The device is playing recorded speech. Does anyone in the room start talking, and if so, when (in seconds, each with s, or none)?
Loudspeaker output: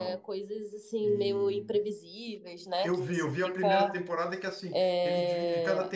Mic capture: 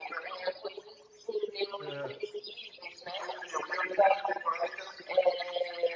1.8 s